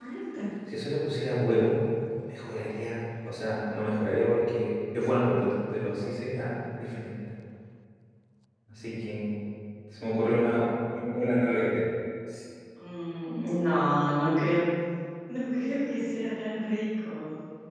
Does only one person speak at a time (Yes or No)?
Yes